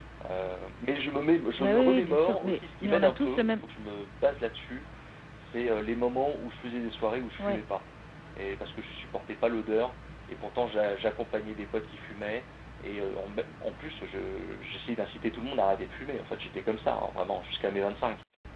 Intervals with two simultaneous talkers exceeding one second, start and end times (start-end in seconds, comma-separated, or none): 1.6-3.5